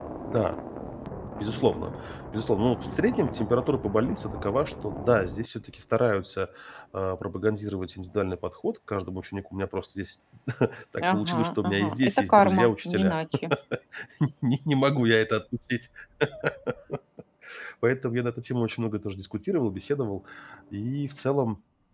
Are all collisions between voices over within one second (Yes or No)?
No